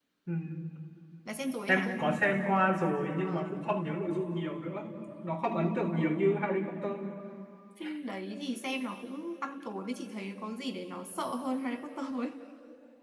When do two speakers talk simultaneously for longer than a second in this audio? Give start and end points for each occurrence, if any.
none

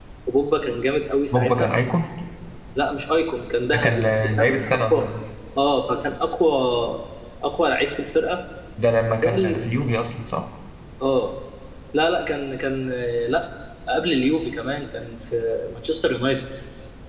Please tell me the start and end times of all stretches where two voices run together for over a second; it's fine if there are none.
3.7-5.1

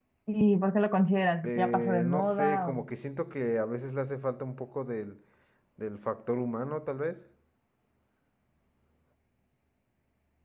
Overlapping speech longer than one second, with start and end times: 1.4-2.9

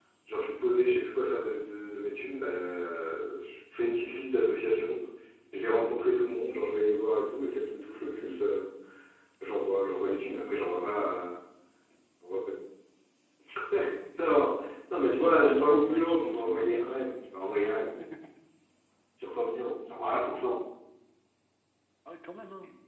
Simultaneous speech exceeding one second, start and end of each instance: 15.1-16.9

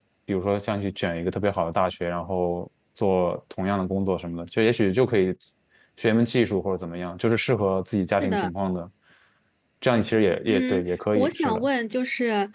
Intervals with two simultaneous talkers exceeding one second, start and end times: 10.5-11.7

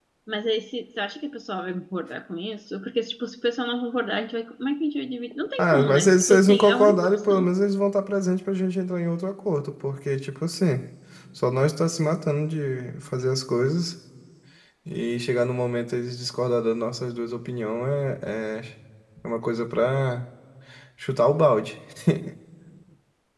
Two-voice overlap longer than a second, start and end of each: 5.6-7.5

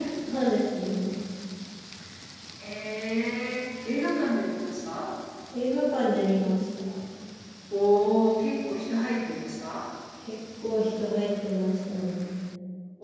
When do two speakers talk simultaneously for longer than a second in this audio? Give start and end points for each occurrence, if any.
none

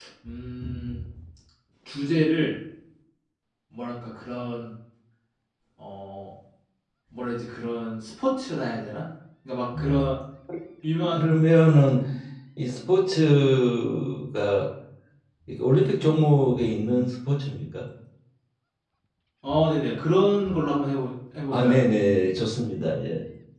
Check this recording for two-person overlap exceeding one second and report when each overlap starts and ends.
none

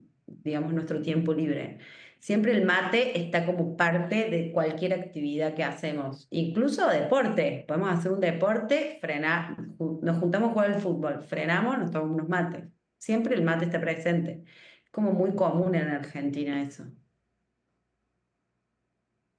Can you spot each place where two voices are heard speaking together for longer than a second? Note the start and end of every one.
none

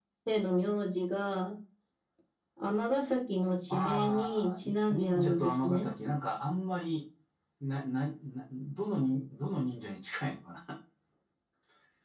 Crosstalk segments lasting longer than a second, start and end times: 3.7-5.9

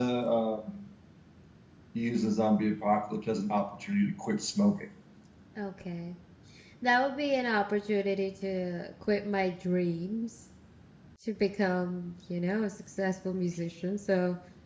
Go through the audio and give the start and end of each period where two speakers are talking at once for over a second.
none

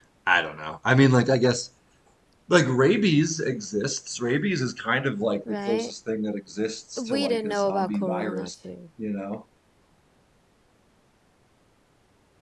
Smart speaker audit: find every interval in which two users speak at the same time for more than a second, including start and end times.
7.0-8.5

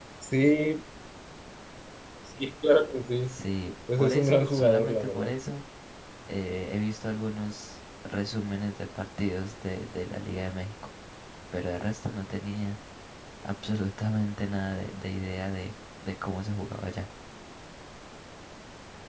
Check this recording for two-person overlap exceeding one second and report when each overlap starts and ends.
4.0-5.3

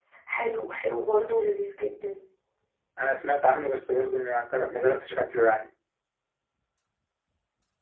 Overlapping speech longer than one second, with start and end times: none

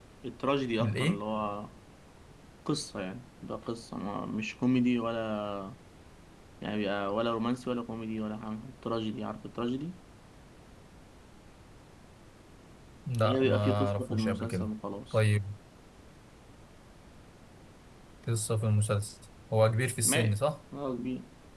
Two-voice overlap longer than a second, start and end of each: 13.2-14.7

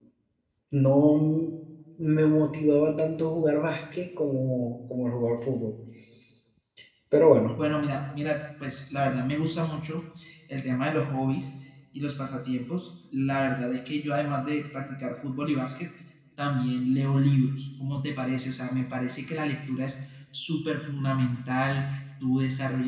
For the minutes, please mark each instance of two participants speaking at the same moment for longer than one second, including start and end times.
none

